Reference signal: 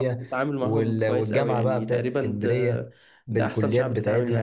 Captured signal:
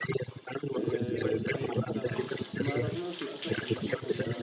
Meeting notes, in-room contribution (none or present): present